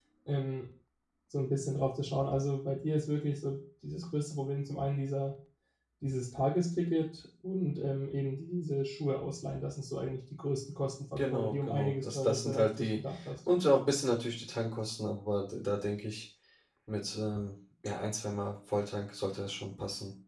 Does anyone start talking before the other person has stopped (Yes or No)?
Yes